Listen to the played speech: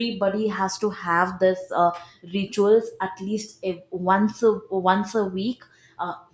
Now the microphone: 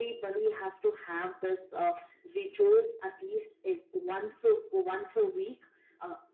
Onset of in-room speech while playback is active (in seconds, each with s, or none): none